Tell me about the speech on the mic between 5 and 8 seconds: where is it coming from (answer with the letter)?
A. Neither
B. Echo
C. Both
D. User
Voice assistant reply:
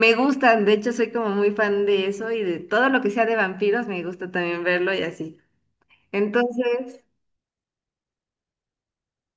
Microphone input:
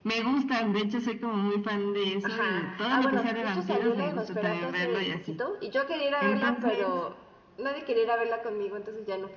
C